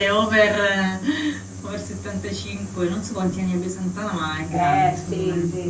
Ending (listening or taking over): taking over